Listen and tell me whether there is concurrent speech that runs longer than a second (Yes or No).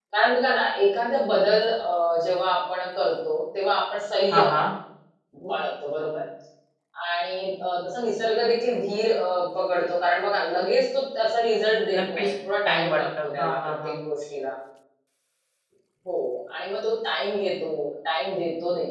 Yes